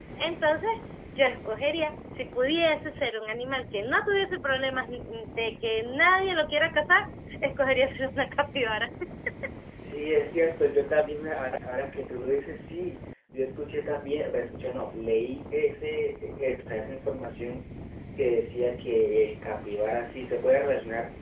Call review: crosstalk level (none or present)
none